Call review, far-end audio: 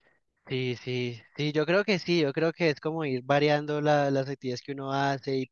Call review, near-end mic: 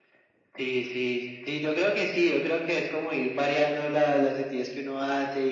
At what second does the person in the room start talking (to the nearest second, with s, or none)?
none